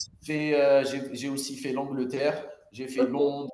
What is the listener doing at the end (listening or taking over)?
listening